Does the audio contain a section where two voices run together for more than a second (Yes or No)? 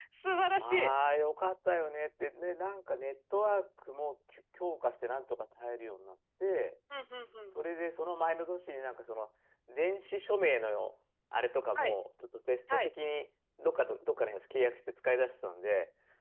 No